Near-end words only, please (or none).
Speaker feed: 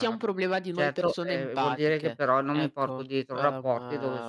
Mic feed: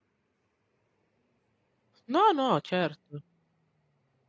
No, no. certo.